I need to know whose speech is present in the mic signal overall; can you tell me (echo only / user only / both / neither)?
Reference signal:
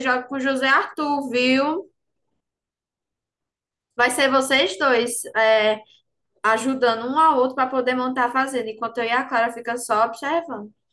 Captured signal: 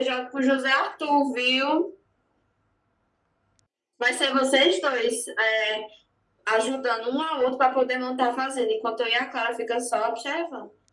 echo only